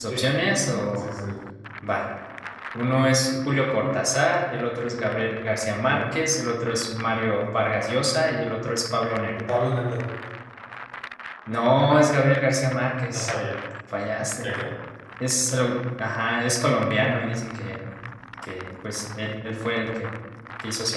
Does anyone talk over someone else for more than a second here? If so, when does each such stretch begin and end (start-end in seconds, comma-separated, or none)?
none